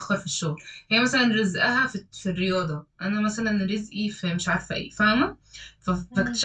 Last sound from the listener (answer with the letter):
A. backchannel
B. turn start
A